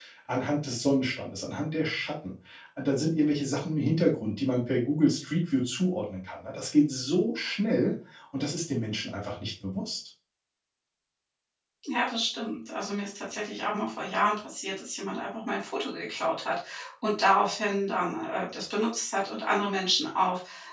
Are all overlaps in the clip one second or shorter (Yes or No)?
Yes